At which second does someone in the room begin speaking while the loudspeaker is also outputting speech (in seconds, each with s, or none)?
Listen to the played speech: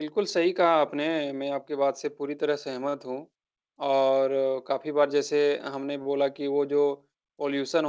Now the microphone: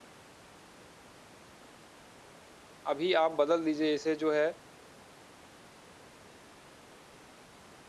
2.9 s